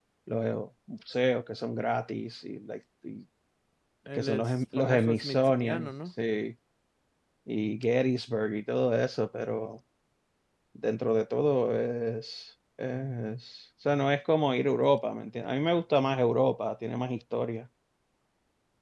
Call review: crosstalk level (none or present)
present